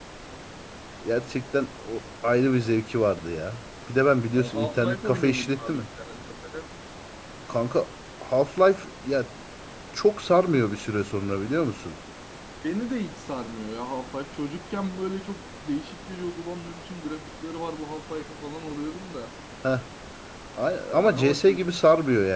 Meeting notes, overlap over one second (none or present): present